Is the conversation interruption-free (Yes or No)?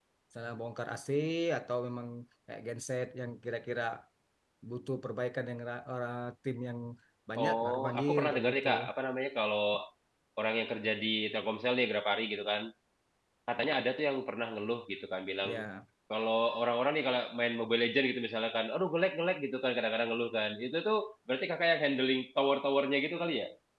No